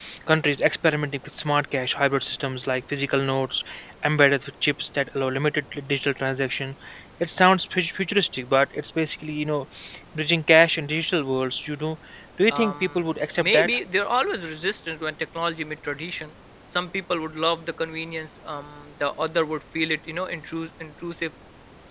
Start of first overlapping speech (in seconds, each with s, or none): 12.5 s